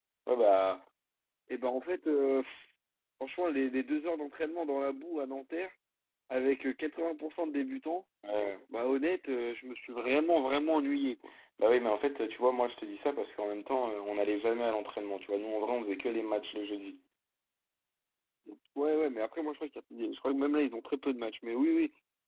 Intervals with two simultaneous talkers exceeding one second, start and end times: none

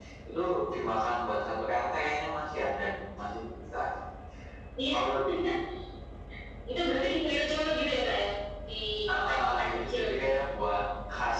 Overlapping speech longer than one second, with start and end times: 9.1-10.3

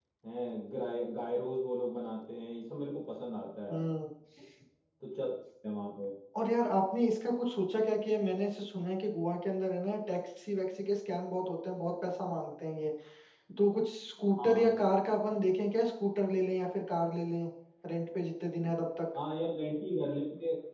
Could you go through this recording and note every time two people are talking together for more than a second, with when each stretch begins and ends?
none

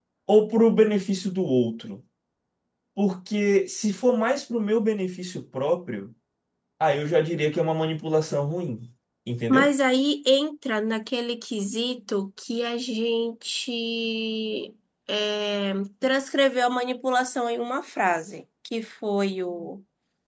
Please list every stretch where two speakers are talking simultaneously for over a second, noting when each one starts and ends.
none

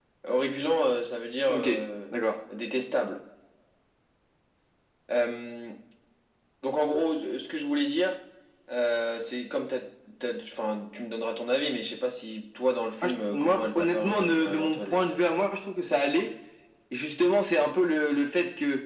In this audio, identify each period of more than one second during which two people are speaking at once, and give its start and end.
13.0-15.0

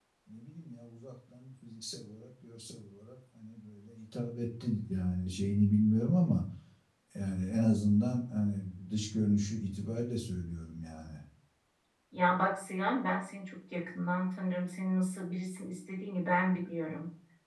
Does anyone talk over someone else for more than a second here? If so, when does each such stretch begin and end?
none

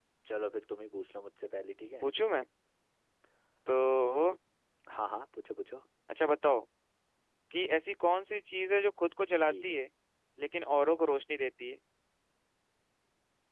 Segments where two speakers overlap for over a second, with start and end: none

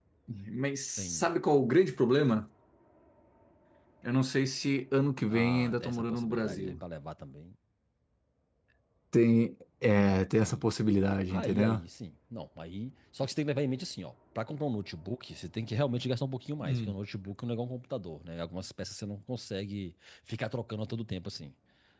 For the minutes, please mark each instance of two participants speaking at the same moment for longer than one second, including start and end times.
5.3-6.8

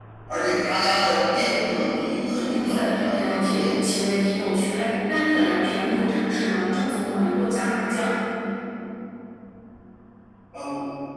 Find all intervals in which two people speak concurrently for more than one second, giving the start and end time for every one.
2.3-3.7

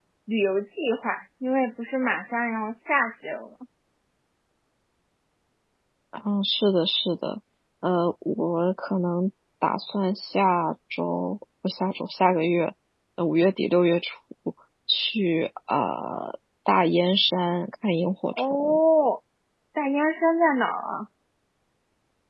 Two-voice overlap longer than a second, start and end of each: none

